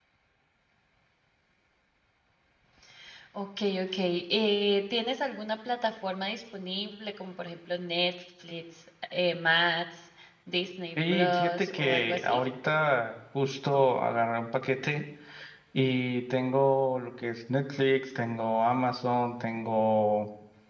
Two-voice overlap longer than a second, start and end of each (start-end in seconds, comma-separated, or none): 11.0-12.4